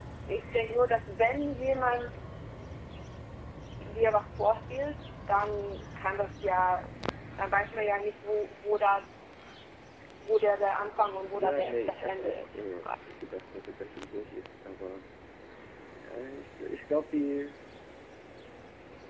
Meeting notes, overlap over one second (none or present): present